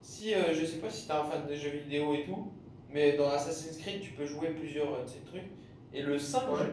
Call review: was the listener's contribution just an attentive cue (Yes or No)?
Yes